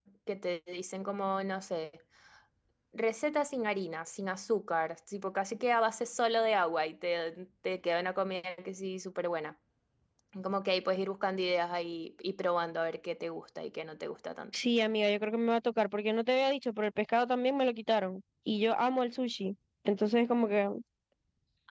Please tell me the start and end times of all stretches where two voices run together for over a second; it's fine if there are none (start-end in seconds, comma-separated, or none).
none